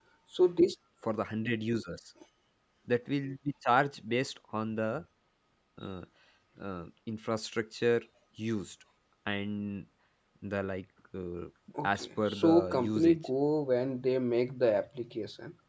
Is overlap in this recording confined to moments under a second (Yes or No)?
No